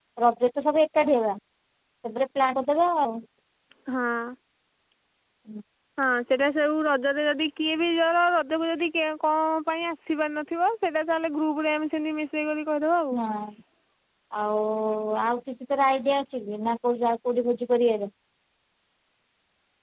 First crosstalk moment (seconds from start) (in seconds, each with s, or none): none